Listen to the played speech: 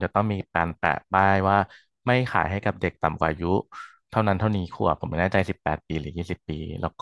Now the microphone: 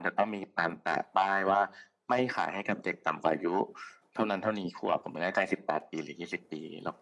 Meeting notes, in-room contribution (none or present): none